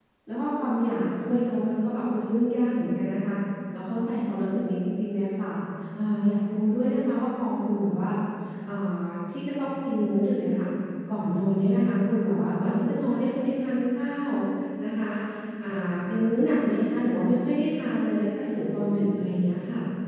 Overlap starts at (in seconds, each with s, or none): none